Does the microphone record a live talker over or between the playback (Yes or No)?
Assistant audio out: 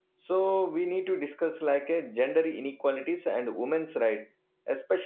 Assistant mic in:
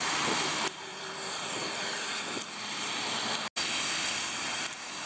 No